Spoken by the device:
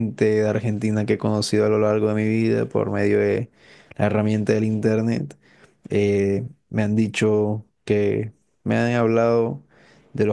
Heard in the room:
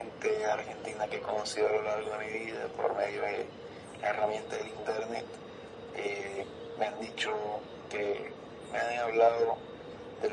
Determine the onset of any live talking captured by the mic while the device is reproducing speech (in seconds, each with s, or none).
none